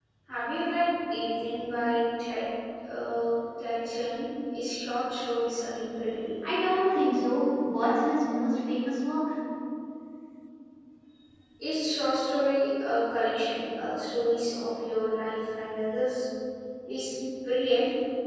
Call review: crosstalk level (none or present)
none